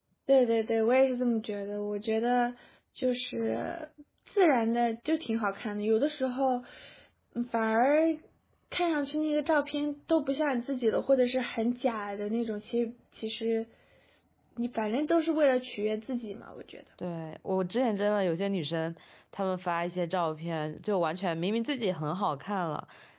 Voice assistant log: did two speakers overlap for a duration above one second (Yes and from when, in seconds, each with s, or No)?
No